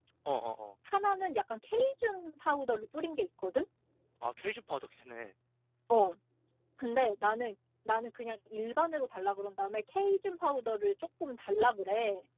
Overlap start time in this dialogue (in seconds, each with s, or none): none